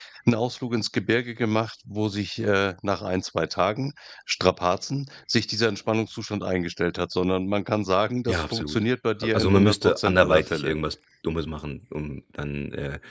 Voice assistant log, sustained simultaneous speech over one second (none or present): present